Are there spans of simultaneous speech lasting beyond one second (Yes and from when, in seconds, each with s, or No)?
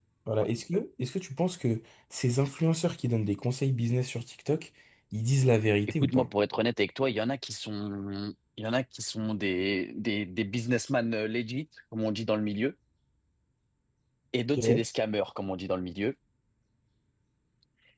No